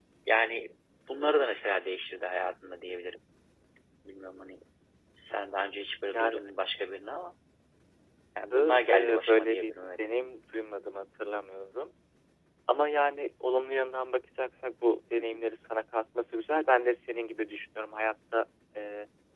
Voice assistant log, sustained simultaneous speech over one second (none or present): present